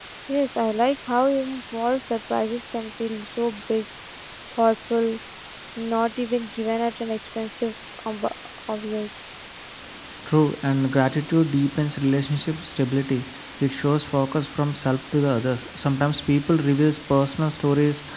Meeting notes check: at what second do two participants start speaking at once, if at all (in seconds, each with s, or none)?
none